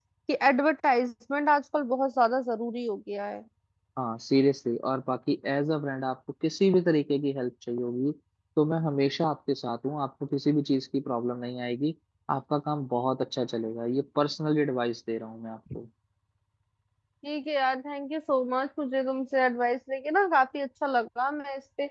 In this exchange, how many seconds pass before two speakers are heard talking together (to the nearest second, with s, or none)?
none